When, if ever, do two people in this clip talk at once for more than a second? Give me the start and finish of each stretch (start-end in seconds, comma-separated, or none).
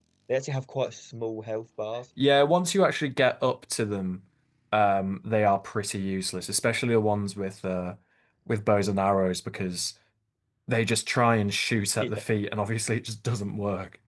none